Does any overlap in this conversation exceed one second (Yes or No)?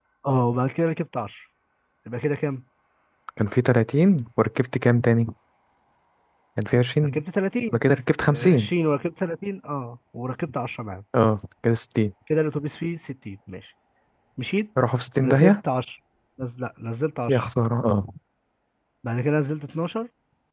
No